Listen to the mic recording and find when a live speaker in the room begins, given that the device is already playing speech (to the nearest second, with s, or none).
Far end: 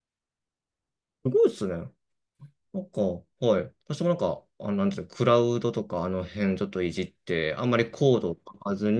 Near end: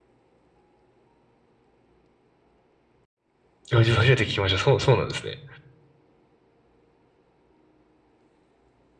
4 s